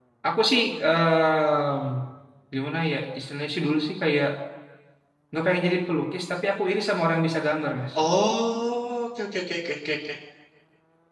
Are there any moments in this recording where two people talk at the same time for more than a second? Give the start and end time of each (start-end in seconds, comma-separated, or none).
none